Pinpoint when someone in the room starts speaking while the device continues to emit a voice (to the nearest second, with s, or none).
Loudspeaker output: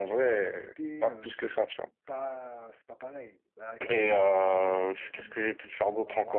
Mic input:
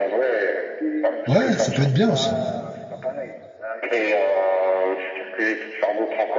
1 s